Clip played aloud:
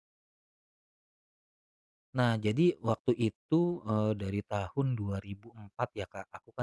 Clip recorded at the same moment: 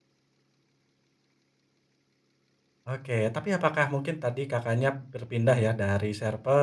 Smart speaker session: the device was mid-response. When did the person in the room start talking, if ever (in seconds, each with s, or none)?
2.9 s